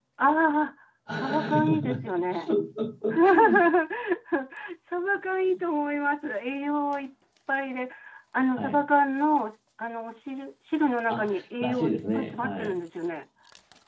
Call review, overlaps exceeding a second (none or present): present